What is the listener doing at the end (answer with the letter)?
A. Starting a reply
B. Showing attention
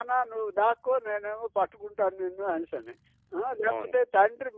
B